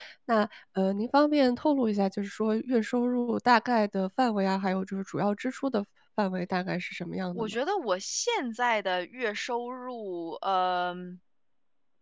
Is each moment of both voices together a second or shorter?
Yes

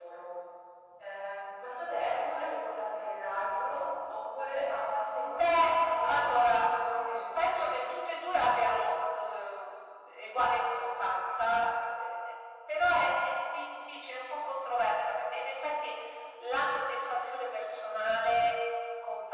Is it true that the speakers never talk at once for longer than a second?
No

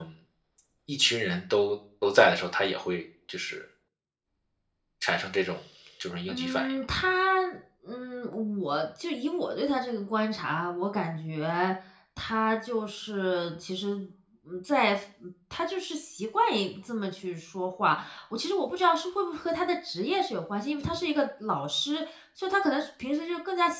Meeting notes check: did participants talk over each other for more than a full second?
No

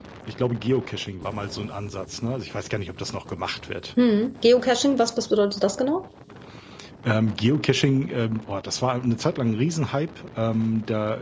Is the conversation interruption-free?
Yes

